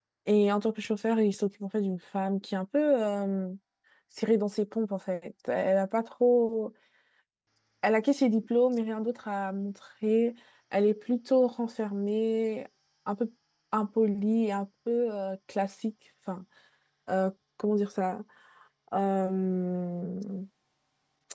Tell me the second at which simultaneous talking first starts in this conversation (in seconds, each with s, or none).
none